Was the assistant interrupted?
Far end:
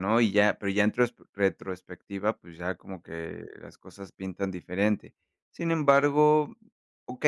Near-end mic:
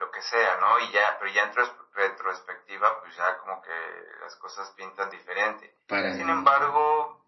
Yes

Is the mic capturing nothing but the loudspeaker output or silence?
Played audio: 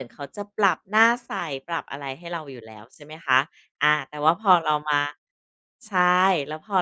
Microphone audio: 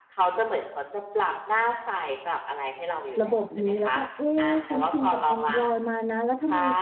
No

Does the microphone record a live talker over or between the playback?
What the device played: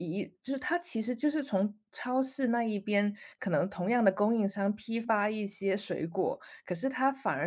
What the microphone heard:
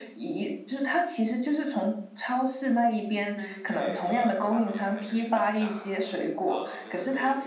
Yes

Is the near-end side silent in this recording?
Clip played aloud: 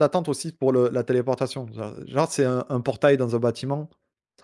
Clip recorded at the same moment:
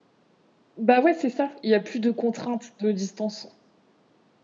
No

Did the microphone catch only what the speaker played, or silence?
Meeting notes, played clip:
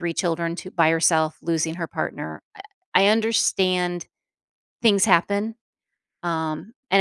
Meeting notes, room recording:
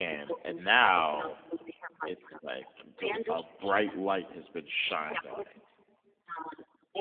No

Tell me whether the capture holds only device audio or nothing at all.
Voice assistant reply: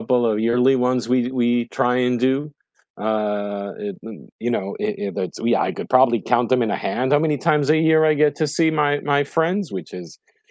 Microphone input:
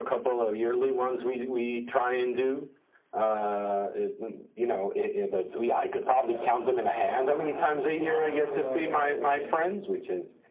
No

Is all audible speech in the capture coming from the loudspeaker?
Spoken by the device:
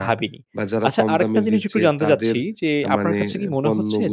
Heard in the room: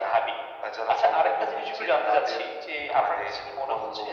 Yes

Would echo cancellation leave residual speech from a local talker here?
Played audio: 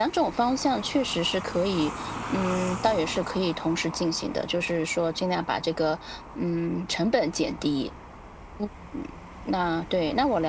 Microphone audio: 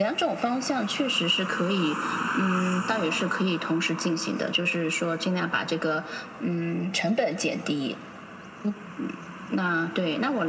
No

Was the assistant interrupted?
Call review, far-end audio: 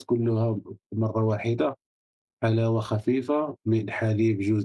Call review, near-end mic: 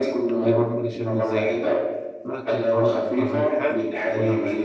Yes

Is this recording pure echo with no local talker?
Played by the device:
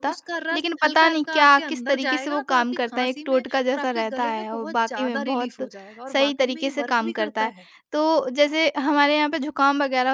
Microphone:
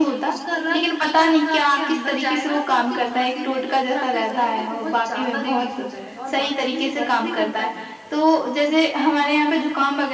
Yes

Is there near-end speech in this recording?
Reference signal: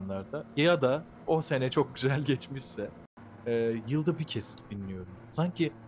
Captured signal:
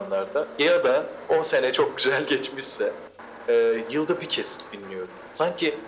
No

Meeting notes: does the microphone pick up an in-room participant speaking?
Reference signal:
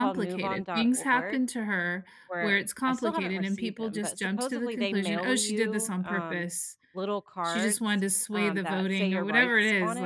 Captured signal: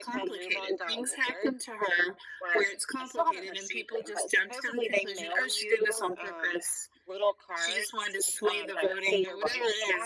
No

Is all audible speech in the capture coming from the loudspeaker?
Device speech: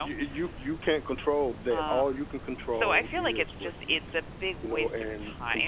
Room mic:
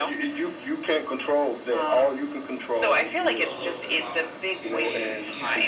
No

